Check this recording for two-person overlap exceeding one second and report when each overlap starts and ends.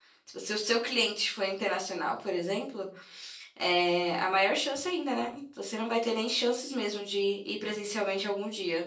none

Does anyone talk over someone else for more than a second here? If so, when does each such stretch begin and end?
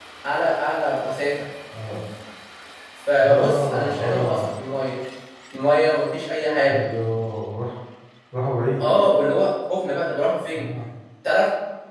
3.2-4.5

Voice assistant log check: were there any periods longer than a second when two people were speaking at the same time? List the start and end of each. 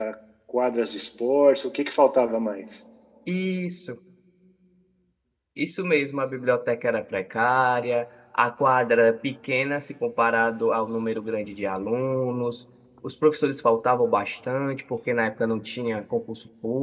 none

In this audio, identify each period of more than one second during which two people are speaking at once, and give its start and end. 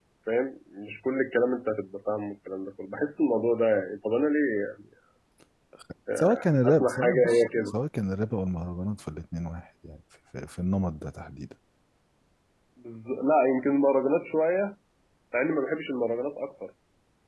6.2-7.7

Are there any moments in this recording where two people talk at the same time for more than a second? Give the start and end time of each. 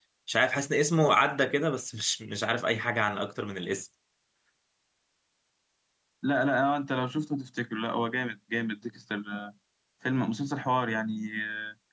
none

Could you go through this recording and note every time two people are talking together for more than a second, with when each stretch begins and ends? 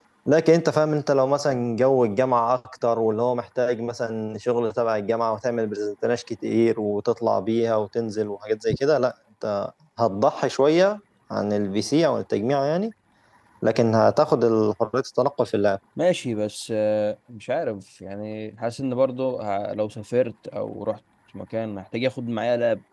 none

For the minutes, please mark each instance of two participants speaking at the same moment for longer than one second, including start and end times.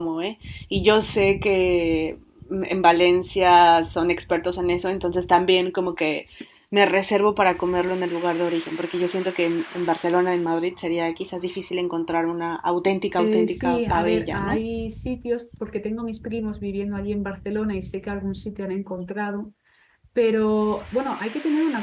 13.2-14.6

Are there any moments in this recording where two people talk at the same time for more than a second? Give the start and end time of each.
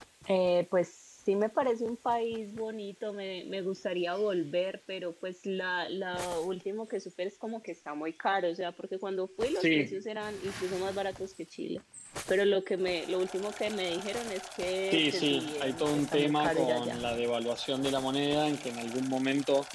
14.9-17.0

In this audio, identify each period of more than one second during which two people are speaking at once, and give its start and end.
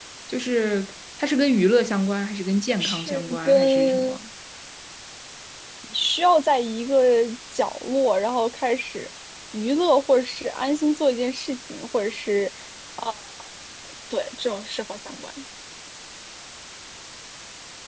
2.7-4.2

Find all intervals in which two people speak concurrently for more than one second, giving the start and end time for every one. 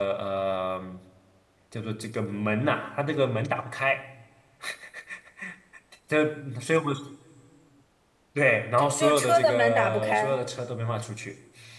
8.8-10.4

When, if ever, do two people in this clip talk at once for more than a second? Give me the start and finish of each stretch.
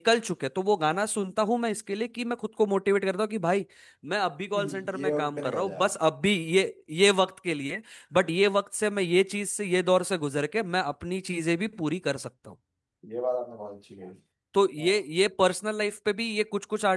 4.6-5.9

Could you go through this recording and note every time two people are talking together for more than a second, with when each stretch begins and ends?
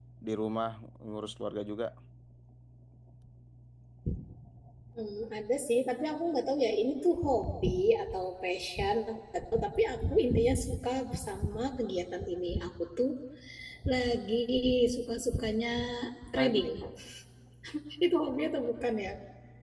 none

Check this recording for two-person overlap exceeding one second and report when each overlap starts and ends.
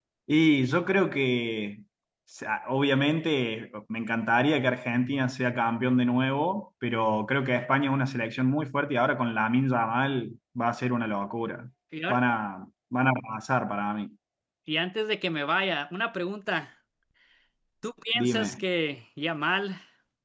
none

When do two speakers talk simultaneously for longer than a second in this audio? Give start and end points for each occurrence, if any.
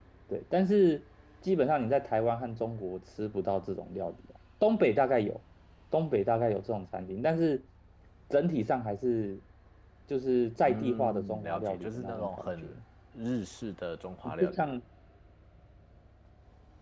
10.6-12.5

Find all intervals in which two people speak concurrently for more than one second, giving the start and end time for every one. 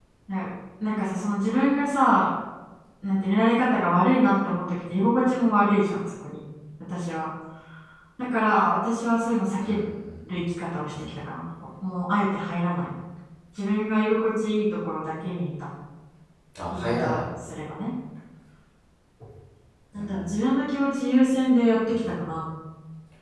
none

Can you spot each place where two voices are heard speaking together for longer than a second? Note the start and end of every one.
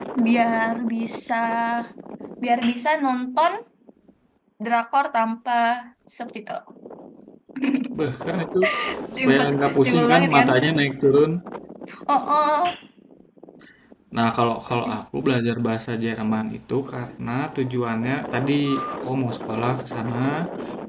9.2-10.5

